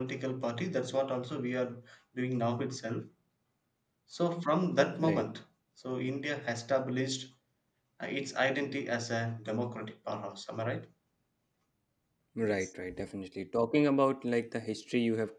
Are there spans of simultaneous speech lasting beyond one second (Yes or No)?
No